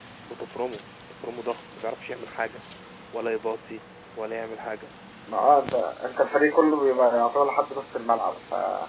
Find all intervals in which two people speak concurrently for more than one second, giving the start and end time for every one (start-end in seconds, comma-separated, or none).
none